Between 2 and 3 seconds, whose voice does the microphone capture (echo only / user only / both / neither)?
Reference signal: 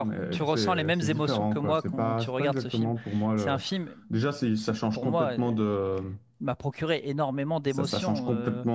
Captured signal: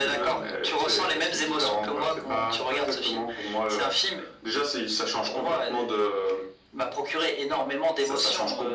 echo only